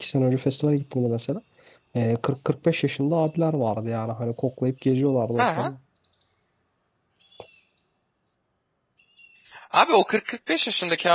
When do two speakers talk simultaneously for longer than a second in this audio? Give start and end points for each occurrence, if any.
none

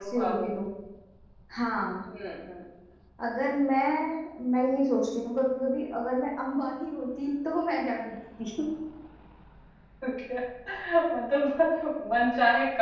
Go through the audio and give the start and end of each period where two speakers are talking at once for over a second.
none

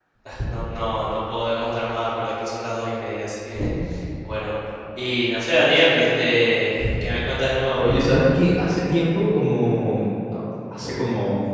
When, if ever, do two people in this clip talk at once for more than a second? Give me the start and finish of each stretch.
none

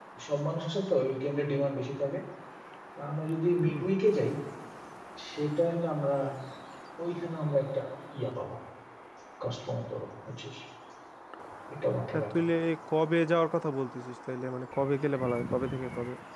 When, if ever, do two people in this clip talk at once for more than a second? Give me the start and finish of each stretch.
none

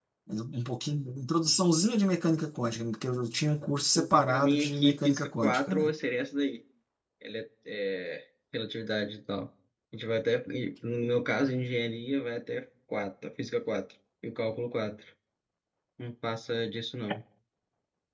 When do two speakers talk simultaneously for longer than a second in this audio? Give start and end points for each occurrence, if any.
4.0-5.9

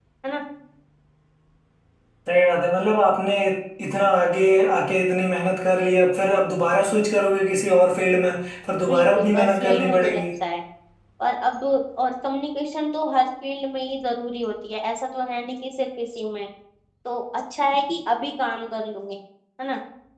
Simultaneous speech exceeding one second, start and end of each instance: 8.9-10.2

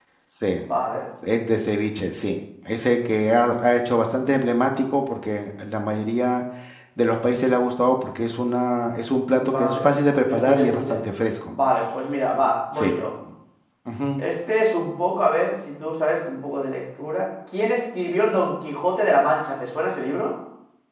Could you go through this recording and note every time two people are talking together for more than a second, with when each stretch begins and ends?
9.4-11.0

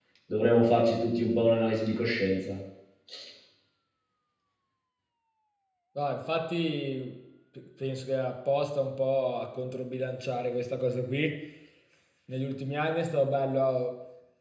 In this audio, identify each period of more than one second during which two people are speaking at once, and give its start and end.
none

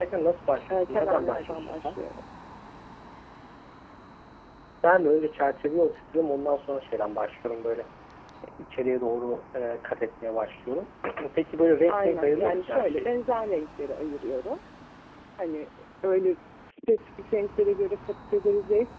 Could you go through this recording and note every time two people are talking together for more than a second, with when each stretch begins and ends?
0.7-2.0, 11.9-13.1

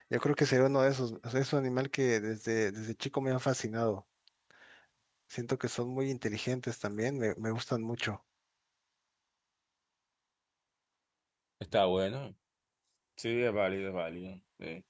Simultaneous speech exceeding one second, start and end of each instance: none

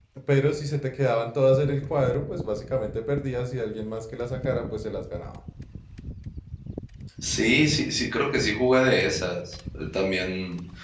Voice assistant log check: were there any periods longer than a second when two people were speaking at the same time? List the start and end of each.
none

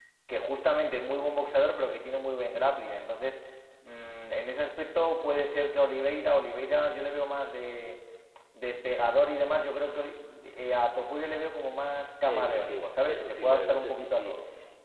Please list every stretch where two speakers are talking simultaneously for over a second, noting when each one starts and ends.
12.2-14.3

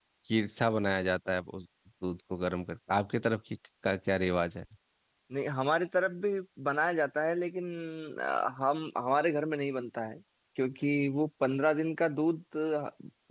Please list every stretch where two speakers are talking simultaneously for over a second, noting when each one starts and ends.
none

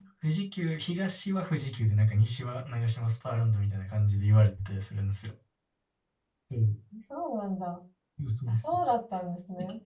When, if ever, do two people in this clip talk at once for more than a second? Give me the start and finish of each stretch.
none

